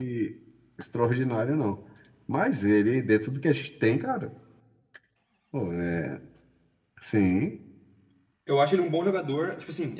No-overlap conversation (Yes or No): Yes